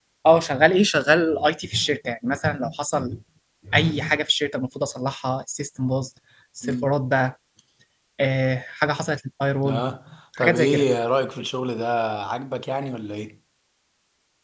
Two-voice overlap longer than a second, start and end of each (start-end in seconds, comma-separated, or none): none